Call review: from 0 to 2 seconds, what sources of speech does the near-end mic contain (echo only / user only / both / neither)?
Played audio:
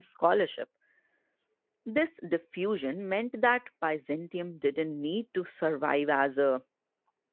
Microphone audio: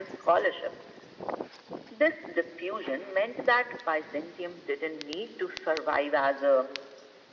echo only